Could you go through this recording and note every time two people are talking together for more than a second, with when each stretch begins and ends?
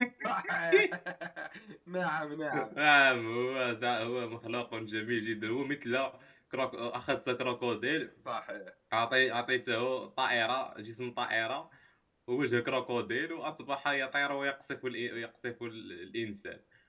none

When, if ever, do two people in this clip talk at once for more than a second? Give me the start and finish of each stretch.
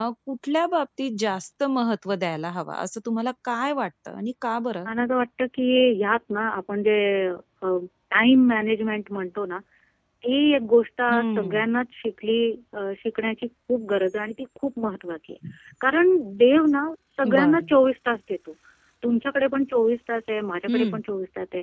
none

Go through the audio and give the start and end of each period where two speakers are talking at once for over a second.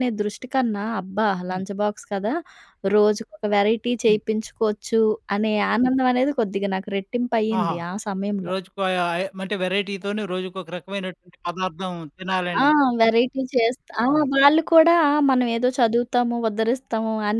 none

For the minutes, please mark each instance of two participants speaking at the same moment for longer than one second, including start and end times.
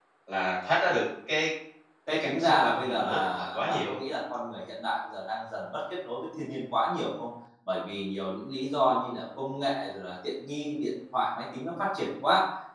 2.1-4.0

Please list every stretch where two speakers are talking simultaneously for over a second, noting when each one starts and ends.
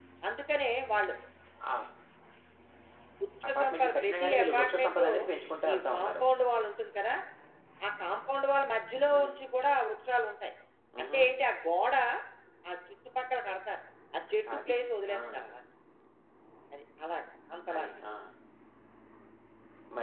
3.5-5.0

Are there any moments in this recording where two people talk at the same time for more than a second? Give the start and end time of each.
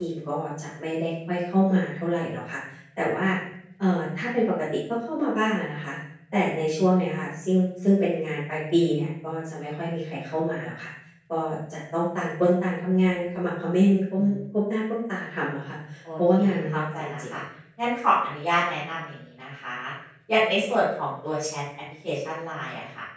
16.2-17.4

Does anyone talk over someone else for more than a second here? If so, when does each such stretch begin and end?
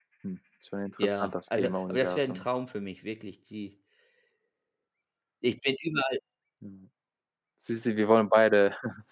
1.0-2.4

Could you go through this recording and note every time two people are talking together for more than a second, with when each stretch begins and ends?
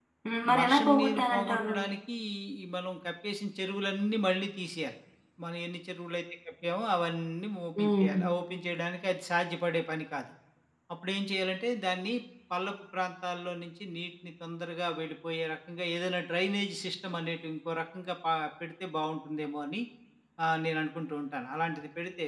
0.6-1.8

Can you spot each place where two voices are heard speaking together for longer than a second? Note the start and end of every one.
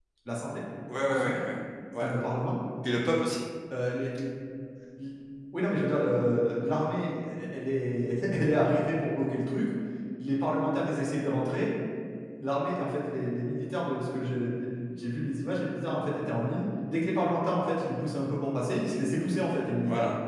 none

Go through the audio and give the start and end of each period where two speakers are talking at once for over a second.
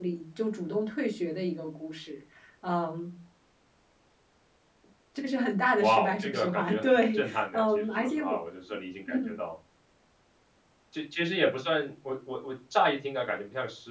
5.8-8.4

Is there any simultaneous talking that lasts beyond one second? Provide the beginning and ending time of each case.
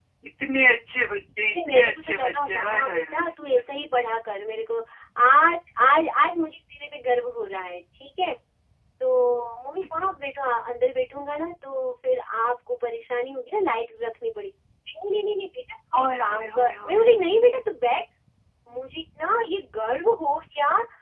1.5-3.6, 16.0-17.4

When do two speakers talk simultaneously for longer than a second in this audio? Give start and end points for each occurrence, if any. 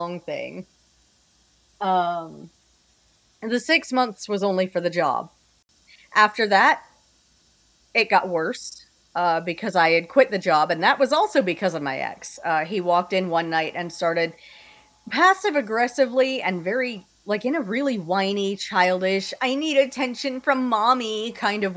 none

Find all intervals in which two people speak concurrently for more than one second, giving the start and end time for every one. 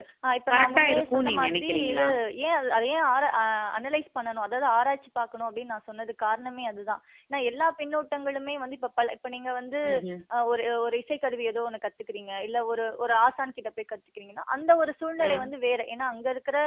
0.5-2.0

